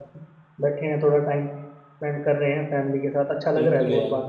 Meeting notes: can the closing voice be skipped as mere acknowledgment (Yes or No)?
No